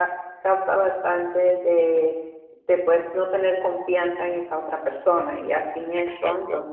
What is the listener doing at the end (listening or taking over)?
listening